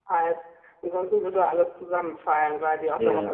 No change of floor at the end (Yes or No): Yes